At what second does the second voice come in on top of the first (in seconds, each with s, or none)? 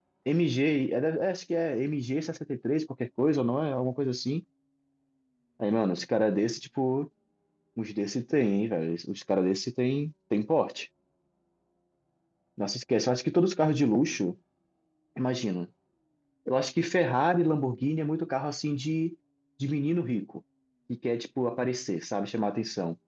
none